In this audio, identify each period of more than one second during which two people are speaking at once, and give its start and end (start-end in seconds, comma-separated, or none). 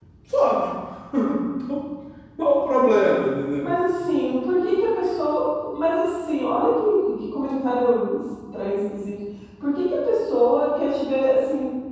none